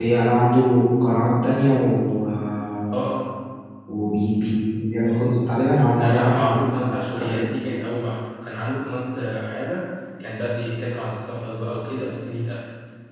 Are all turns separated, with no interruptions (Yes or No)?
No